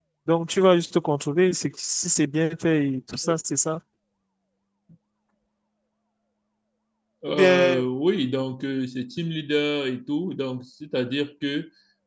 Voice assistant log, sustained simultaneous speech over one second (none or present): none